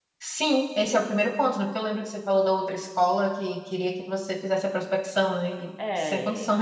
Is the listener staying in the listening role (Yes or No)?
No